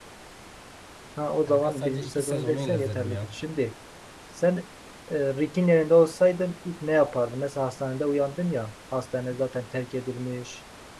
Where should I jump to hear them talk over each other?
1 s

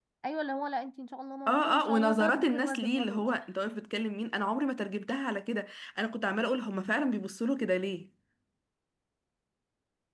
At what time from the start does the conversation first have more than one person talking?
1 s

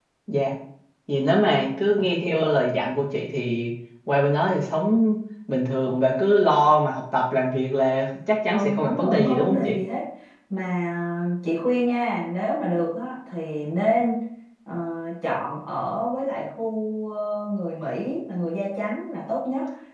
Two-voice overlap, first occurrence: 9 s

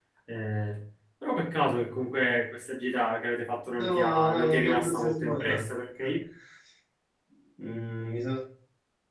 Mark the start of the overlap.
4 s

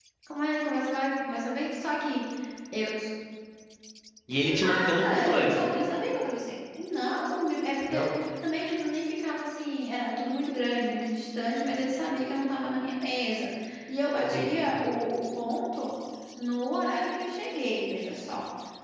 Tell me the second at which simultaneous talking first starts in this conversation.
4 s

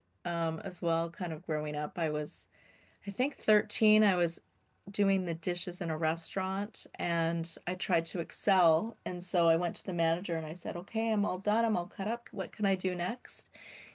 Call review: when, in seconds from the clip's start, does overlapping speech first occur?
none

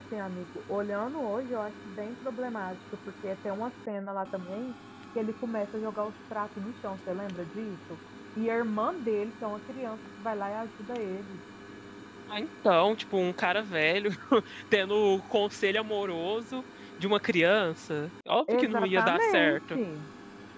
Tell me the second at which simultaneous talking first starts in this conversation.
18 s

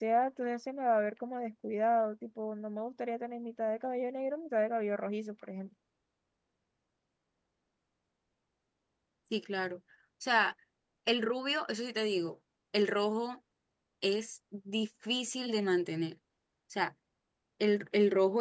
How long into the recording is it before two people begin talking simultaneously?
none

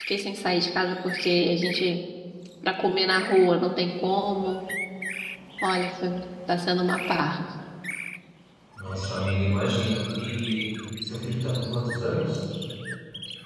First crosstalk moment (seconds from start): none

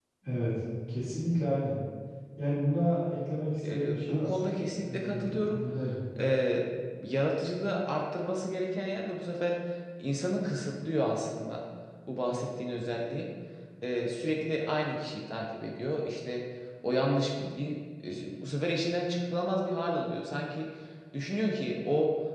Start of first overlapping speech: 4 s

